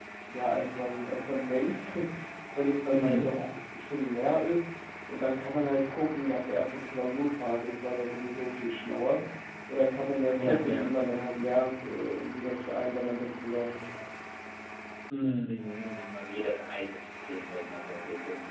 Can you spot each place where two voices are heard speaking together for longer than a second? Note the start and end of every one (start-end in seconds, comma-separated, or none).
none